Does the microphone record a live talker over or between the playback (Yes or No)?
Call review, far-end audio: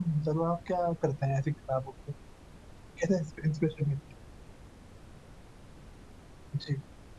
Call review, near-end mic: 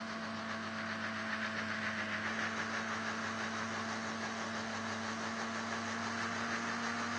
No